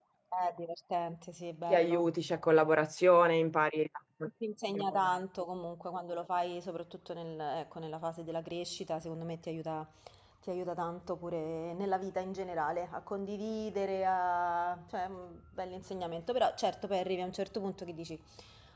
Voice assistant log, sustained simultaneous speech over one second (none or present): none